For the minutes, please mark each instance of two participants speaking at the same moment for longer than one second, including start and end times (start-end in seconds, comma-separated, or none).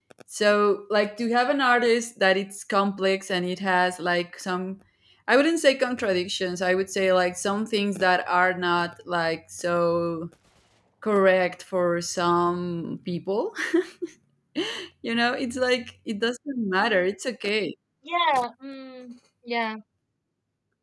none